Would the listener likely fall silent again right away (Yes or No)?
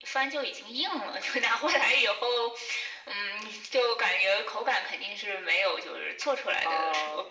Yes